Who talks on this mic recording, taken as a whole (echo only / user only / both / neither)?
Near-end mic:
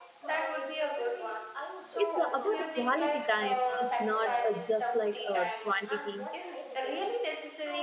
both